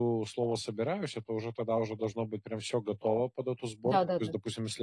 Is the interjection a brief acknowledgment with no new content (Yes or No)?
Yes